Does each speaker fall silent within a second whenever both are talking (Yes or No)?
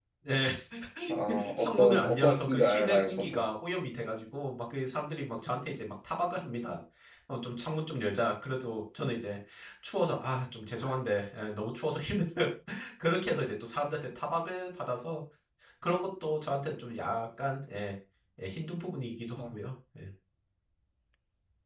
No